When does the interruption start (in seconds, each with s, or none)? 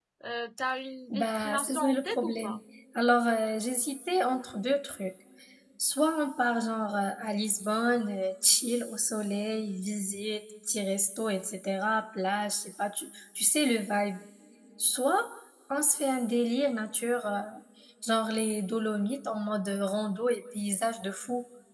1.1 s